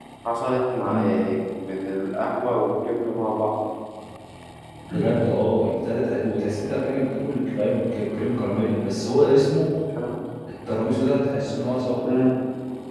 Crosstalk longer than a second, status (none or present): none